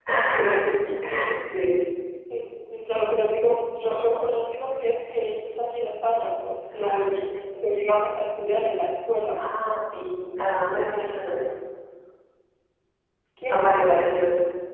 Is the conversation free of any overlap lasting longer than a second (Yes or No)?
Yes